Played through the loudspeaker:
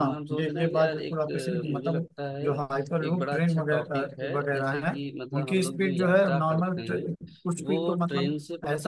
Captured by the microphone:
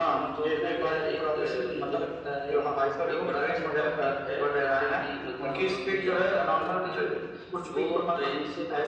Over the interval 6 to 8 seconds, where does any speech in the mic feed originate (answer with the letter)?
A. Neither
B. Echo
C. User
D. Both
B